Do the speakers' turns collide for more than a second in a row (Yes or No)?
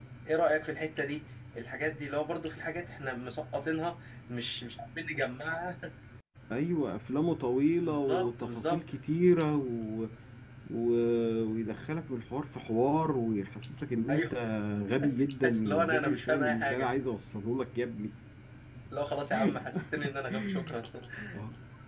Yes